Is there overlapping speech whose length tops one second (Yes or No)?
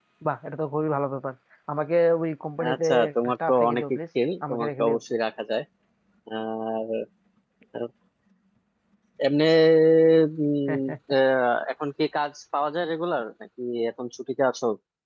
Yes